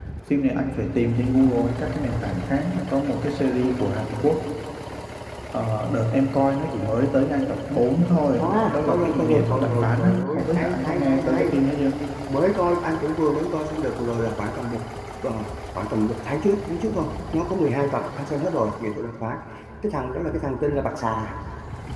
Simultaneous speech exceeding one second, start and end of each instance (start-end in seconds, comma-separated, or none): 8.4-11.5